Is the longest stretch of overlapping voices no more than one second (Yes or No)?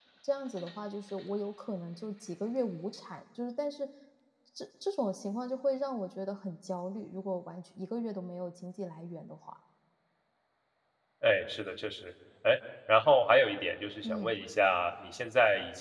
Yes